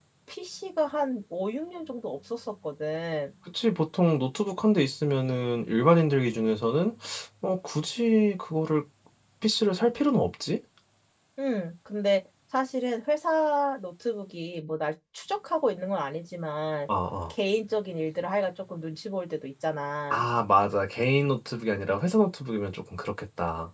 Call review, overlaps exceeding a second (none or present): none